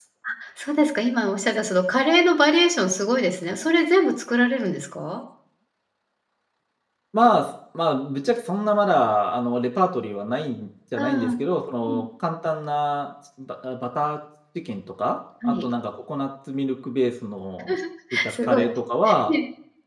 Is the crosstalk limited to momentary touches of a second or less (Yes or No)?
Yes